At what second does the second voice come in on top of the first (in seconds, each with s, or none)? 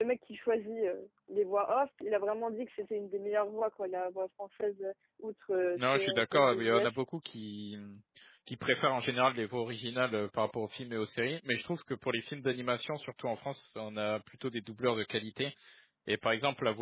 5.8 s